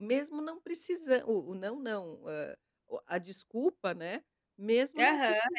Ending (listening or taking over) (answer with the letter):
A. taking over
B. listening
A